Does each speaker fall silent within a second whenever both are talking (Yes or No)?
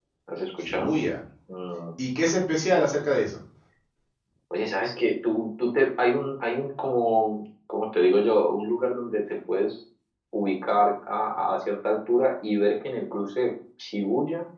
Yes